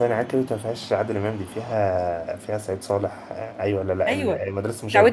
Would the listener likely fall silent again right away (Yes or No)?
No